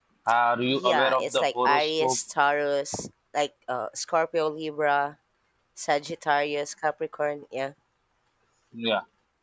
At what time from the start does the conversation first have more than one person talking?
1 s

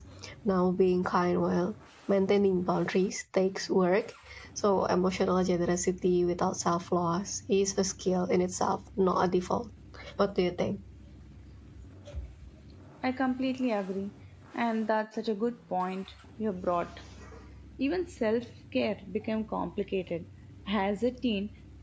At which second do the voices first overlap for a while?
none

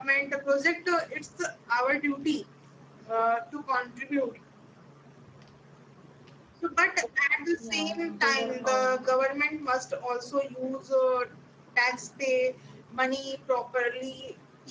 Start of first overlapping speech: 8 s

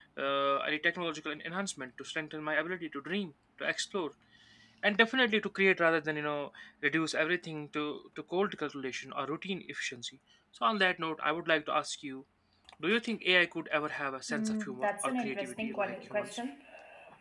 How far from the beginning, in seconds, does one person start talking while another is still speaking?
14 s

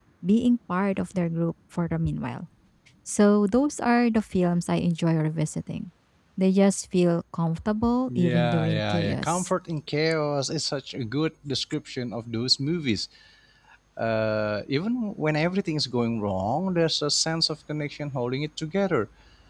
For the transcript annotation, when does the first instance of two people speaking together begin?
8 s

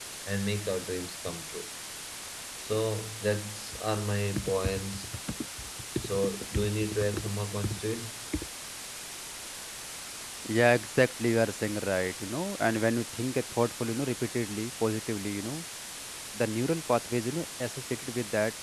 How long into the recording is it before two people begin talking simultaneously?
none

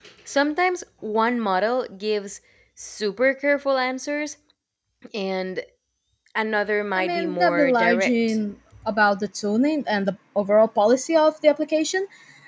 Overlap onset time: 7 s

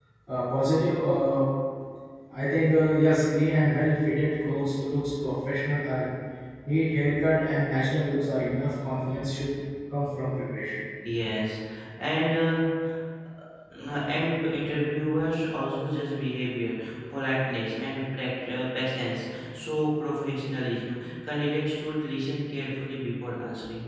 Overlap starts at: none

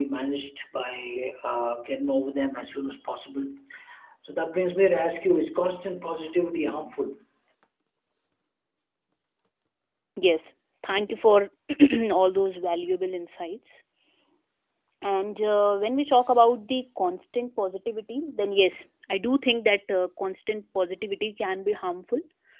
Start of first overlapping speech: none

